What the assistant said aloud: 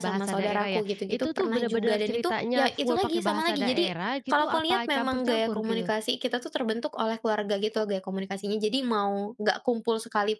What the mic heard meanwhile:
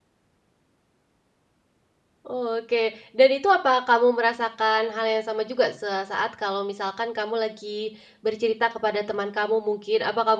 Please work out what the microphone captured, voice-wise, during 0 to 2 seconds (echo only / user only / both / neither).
neither